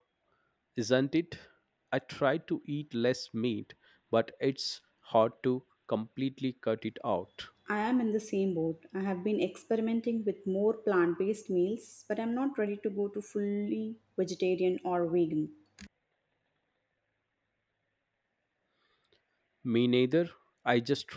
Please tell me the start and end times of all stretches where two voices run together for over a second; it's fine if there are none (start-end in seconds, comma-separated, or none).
none